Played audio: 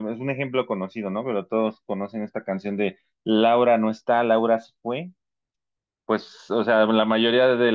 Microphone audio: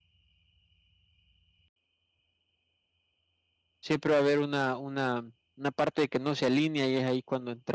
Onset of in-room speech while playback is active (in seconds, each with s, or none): 3.8 s